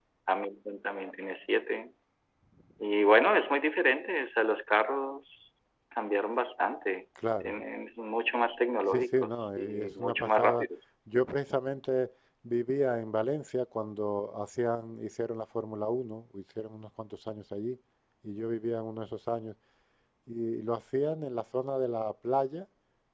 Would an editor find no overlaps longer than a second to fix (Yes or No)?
No